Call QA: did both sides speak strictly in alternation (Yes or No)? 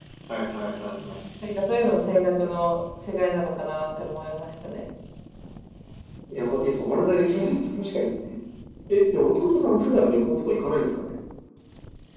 Yes